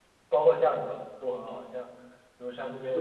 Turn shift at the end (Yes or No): No